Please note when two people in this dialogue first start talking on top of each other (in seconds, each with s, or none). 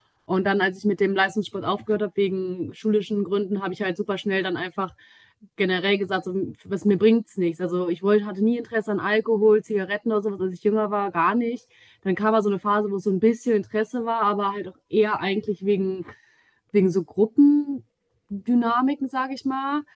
none